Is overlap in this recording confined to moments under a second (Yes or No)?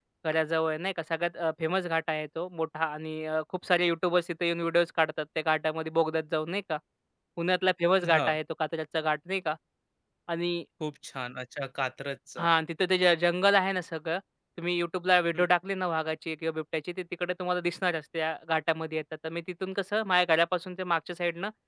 Yes